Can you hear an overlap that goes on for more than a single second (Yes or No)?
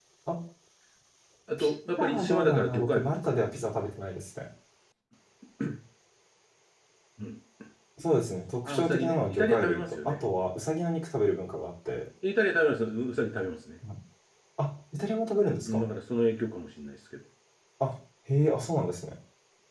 Yes